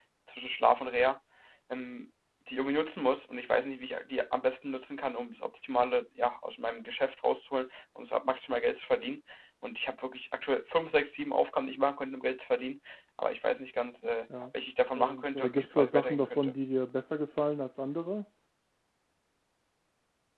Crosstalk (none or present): present